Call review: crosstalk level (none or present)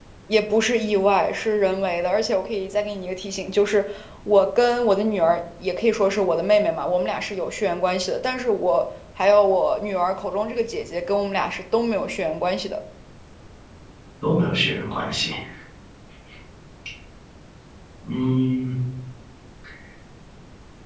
none